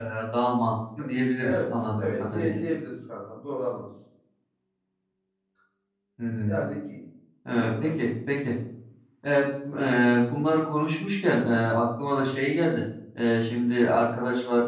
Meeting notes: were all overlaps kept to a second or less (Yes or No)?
No